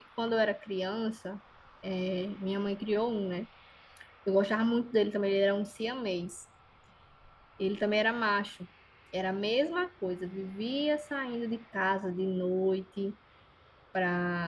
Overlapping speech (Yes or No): No